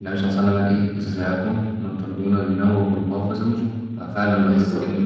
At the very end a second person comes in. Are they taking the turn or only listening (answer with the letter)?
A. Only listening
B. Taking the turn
A